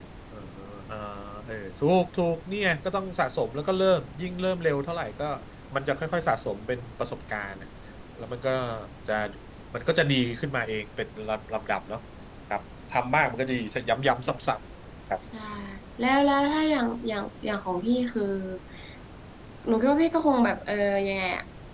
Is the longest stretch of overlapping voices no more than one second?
Yes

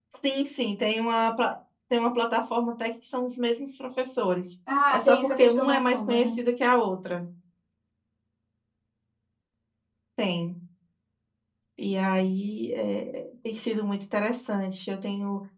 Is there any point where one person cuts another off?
Yes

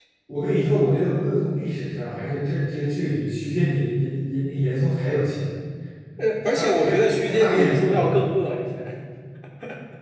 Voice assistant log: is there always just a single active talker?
No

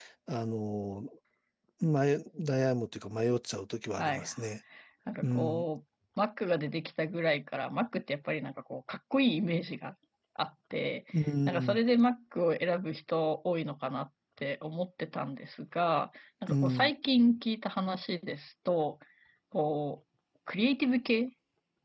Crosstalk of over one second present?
No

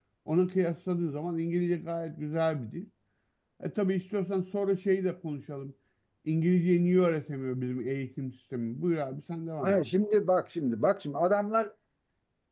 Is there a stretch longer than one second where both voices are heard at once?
No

